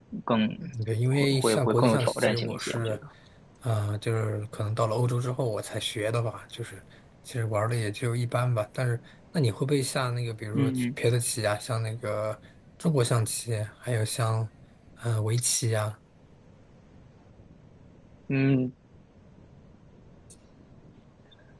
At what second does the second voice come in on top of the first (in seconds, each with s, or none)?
1.1 s